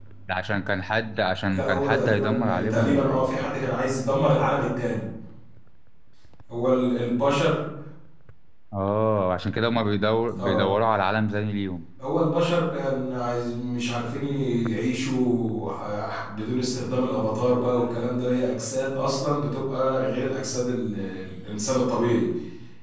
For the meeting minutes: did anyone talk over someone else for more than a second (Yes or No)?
Yes